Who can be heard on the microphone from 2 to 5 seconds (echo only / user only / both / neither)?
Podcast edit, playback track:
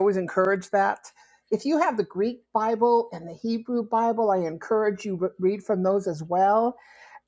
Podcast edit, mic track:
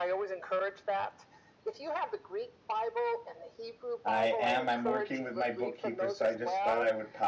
both